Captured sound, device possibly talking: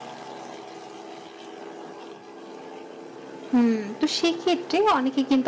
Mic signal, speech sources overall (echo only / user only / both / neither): user only